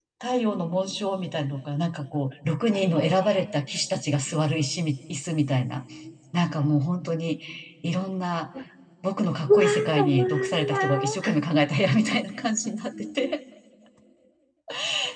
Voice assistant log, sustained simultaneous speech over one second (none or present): present